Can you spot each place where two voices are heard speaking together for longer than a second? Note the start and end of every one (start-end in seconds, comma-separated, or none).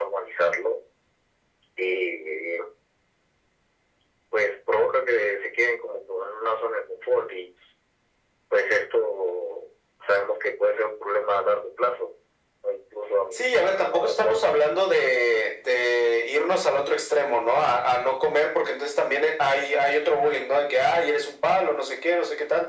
13.3-14.6